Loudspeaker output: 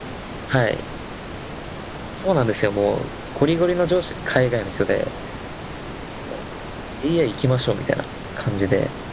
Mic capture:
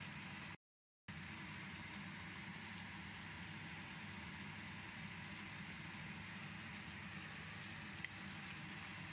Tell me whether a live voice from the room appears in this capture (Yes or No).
No